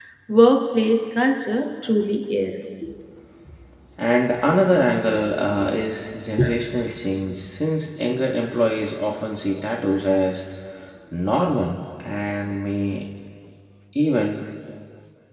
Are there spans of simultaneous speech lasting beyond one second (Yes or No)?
No